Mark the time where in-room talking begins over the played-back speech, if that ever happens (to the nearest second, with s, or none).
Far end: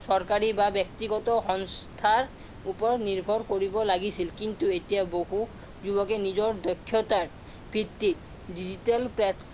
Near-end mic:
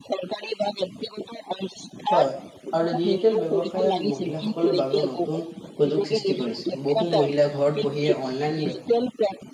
2 s